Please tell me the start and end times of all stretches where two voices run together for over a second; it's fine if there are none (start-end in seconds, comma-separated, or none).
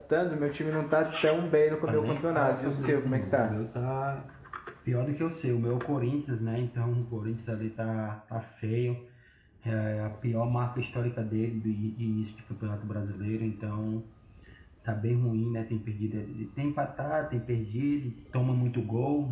1.9-3.5